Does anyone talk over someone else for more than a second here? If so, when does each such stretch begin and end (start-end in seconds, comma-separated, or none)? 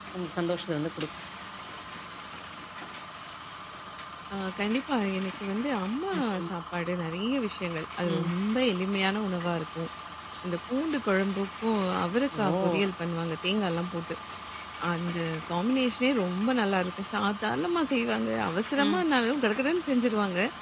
none